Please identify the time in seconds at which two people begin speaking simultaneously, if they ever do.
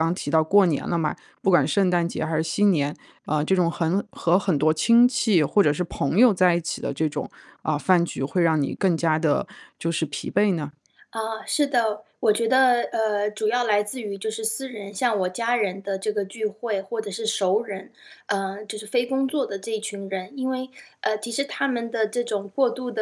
none

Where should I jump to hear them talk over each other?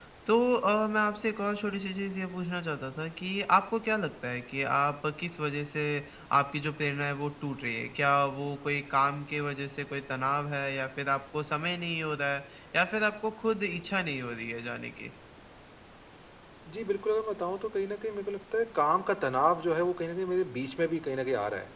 none

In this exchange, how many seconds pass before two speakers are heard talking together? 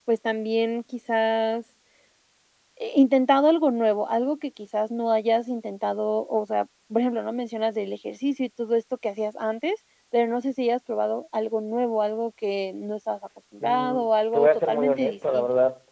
13.6 s

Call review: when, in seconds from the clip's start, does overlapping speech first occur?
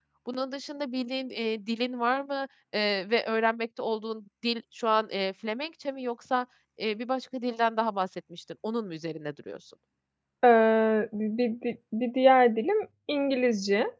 none

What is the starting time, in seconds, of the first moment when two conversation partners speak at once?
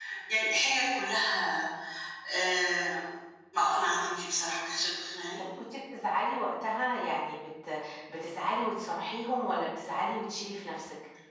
none

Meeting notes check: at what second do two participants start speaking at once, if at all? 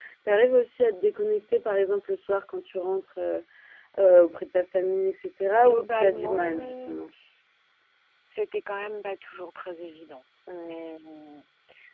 5.5 s

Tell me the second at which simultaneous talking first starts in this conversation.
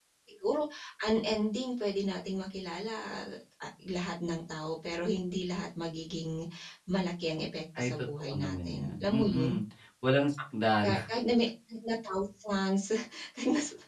7.8 s

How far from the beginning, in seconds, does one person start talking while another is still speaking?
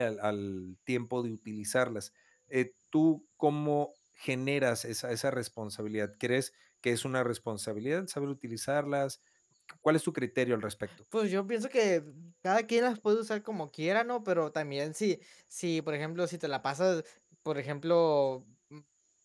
none

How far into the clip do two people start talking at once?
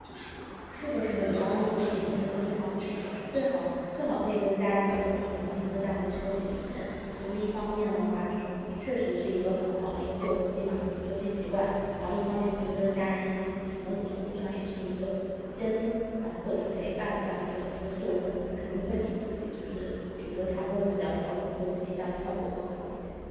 0.9 s

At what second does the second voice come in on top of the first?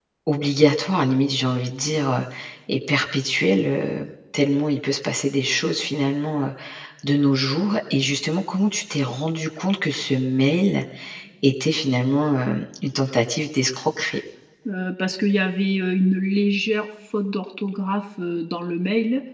none

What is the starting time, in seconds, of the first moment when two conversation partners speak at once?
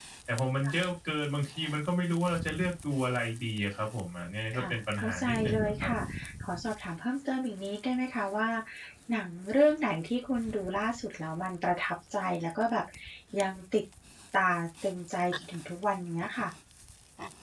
4.5 s

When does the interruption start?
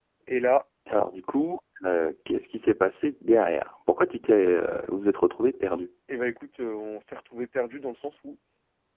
none

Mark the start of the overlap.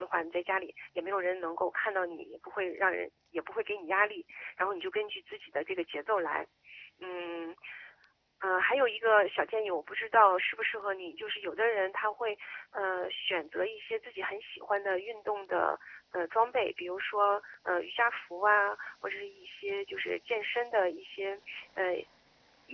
none

